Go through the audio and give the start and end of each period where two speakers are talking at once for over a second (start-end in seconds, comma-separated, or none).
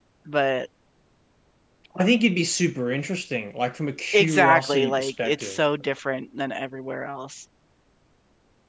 4.1-5.6